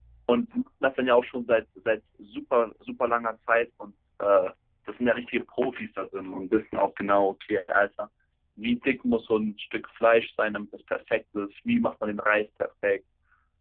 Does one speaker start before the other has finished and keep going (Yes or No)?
No